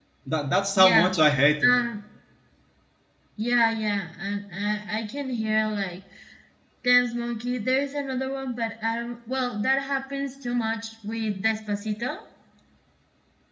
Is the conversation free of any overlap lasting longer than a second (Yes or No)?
Yes